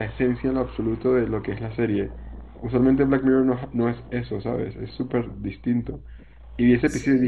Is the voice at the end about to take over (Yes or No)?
No